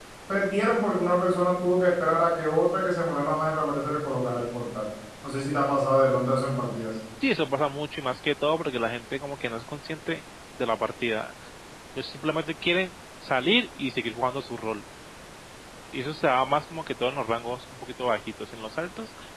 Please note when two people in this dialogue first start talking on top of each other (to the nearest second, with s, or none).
none